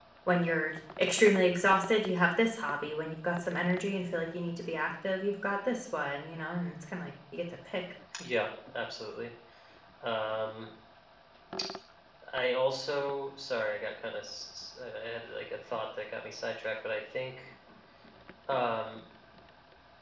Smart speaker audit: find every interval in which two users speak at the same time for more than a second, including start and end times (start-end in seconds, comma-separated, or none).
none